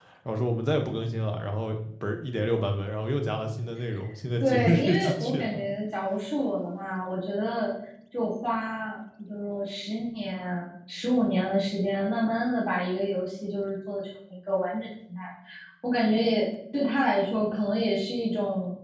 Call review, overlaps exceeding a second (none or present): present